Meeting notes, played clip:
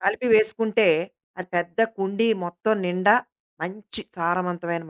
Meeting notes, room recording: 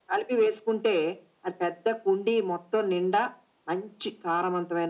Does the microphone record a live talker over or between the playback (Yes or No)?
No